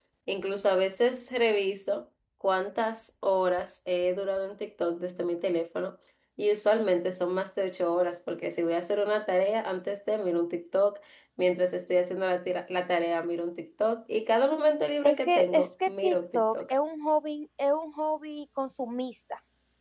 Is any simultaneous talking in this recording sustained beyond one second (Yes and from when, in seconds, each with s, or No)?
Yes, from 15.0 s